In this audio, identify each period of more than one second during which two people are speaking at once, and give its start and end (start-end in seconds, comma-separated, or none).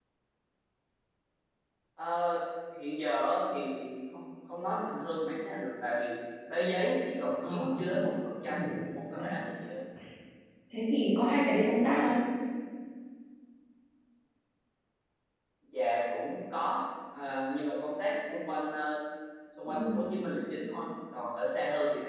none